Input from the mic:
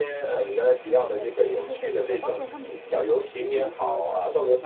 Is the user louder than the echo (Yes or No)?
No